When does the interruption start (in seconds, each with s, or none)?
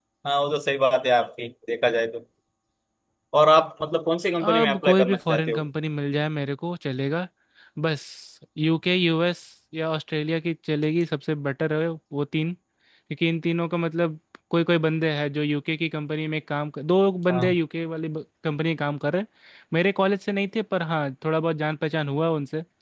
4.4 s